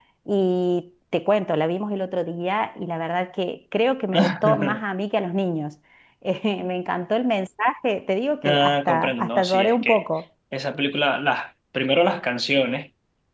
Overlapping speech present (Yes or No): Yes